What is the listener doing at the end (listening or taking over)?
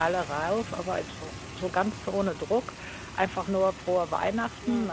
listening